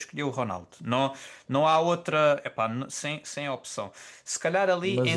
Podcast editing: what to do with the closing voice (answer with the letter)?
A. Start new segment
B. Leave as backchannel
B